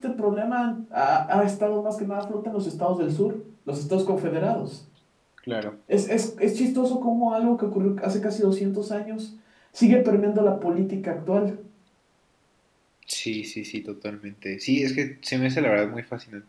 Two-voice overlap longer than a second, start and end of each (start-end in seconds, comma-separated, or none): none